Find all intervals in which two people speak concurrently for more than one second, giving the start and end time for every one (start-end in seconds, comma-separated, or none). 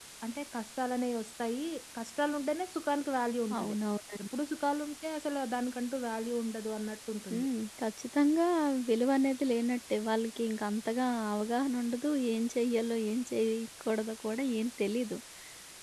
none